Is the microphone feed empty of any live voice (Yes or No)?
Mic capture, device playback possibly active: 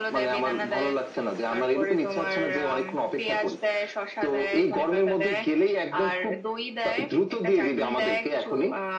Yes